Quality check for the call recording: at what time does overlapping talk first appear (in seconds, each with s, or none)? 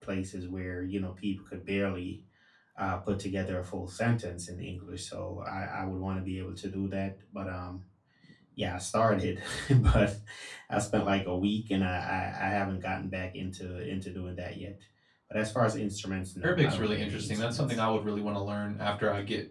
16.4 s